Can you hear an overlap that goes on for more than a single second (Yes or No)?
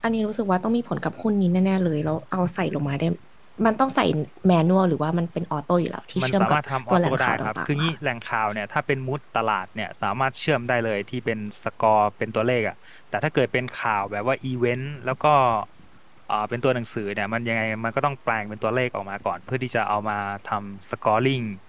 Yes